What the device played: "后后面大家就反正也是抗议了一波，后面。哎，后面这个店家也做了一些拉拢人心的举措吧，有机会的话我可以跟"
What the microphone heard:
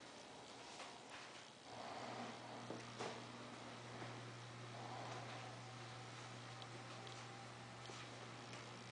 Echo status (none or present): none